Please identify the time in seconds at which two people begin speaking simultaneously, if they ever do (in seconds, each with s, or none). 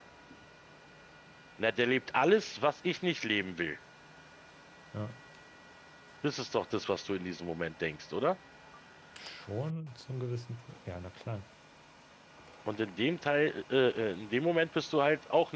none